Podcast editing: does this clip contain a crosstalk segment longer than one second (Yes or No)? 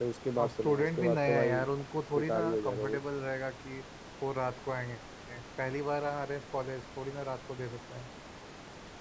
Yes